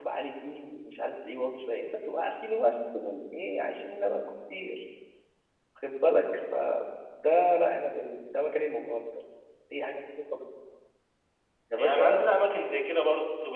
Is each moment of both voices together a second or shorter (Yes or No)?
Yes